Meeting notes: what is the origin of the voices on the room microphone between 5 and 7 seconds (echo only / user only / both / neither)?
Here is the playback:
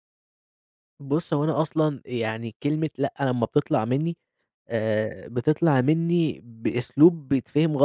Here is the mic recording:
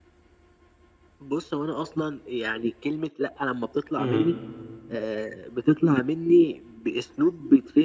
echo only